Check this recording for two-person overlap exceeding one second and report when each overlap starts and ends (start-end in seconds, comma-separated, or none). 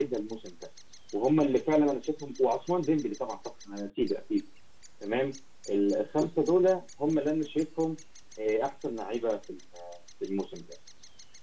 none